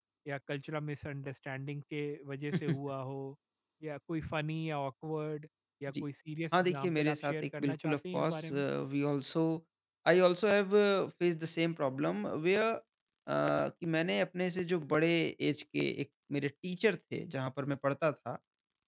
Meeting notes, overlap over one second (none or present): present